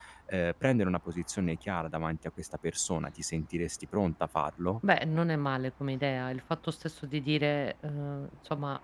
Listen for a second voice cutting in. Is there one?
No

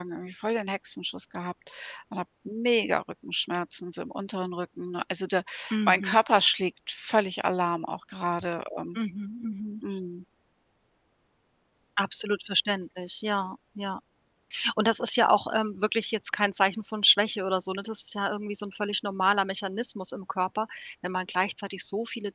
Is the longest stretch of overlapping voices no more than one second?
Yes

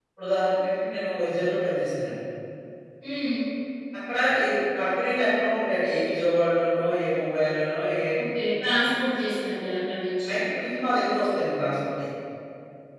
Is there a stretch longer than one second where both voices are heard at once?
No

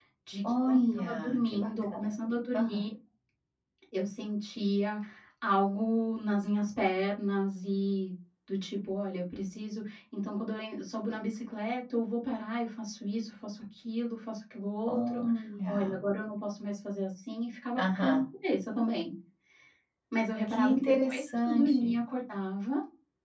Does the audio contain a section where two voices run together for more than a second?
Yes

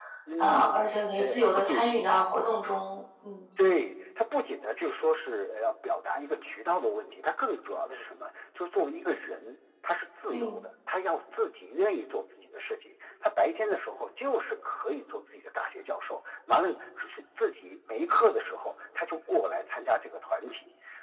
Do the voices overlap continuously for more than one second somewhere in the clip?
Yes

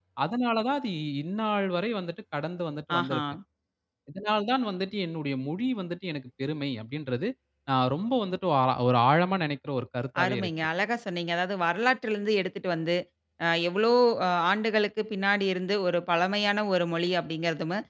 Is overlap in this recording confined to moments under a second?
Yes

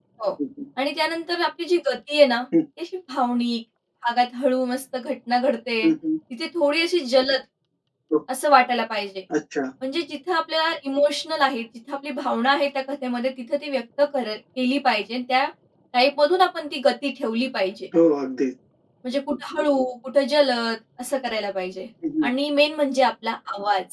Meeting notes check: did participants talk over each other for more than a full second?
No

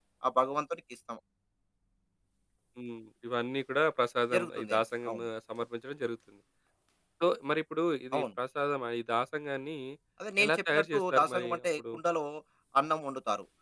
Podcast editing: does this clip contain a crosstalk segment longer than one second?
Yes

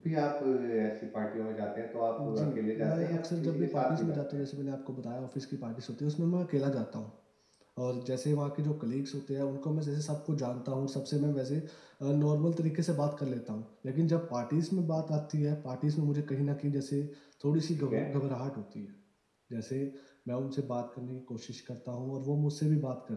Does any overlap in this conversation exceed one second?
Yes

